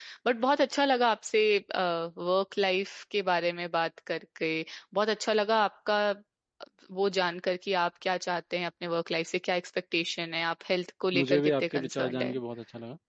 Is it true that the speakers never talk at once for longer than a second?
No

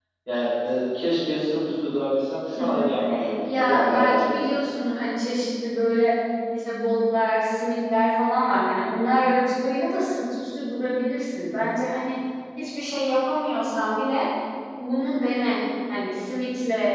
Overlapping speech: Yes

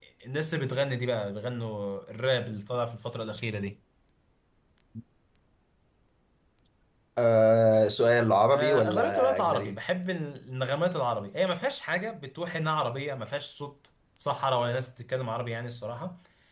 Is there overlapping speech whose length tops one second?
Yes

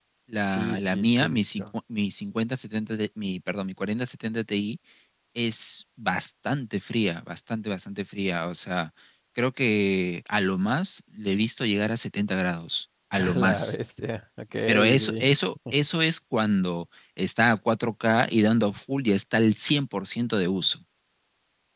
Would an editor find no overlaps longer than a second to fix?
No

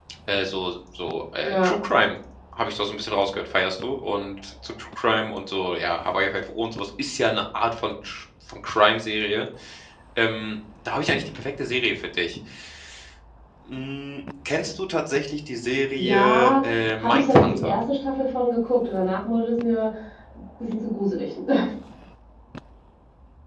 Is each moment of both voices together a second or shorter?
No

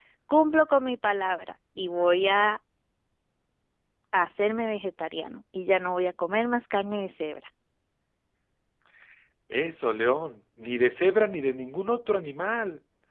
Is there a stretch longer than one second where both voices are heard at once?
No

